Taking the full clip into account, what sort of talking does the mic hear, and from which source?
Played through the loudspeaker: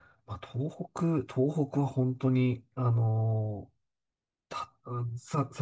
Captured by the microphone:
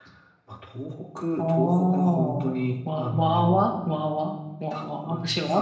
both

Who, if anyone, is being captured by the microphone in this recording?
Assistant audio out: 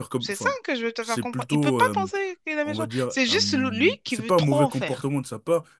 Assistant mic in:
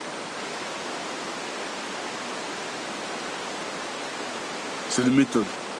user only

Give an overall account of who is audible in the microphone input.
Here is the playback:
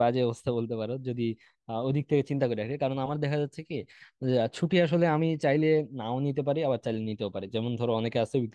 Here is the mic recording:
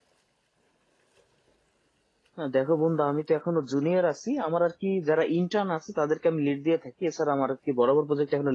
user only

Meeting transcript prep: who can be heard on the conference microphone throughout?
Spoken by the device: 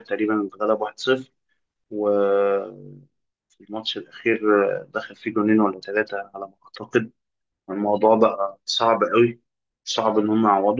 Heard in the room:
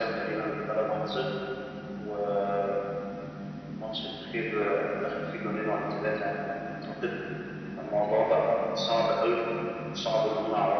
echo only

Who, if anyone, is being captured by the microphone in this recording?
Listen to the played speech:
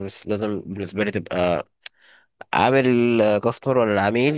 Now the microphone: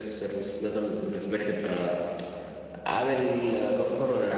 echo only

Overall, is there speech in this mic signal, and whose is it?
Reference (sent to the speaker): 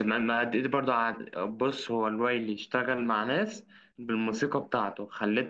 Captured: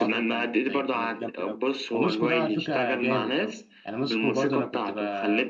both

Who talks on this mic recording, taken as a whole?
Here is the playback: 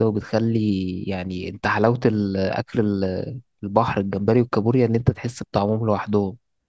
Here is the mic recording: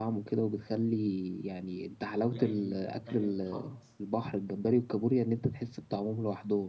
both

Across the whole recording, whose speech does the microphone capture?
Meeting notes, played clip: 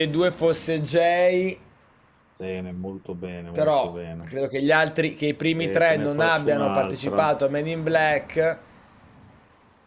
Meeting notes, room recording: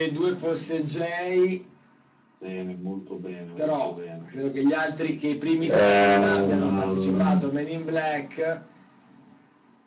both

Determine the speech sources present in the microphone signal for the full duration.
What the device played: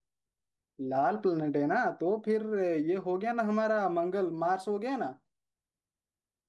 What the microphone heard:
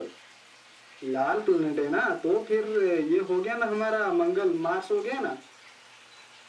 echo only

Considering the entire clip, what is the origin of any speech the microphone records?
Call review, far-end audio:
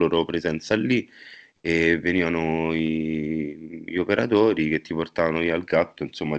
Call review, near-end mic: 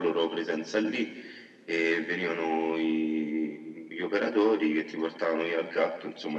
echo only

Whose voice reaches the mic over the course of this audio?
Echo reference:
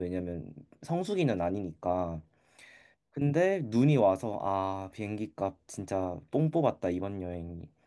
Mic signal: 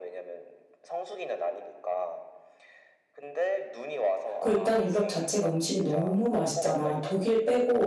both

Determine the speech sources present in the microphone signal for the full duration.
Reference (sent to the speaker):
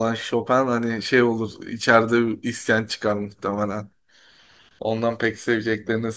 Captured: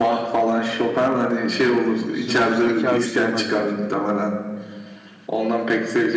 both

